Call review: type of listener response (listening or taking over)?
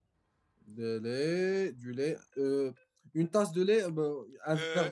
taking over